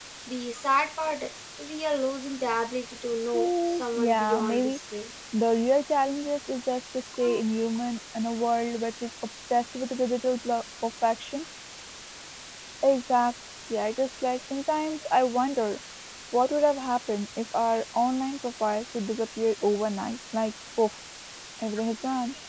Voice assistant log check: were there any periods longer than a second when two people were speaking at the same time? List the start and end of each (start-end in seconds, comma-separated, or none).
3.3-4.8